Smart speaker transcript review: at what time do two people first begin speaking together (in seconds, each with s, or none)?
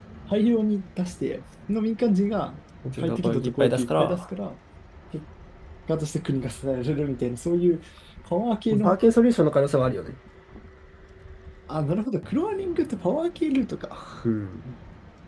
3.0 s